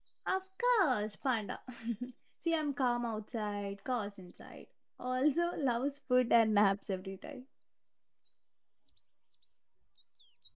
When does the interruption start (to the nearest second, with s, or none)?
none